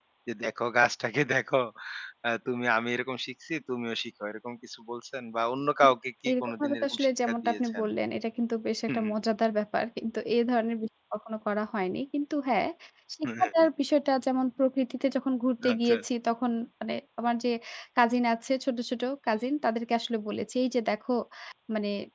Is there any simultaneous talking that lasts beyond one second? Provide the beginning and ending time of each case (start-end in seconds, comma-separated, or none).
6.3-7.8